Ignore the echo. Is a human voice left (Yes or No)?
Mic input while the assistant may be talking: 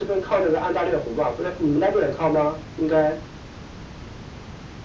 No